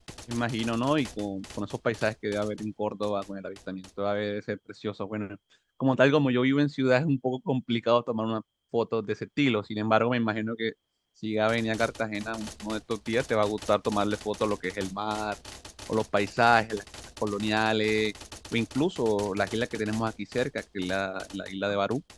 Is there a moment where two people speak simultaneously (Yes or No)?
No